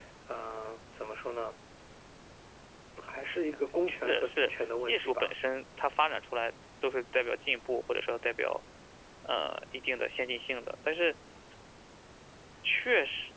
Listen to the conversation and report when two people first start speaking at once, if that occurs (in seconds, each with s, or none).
4.0 s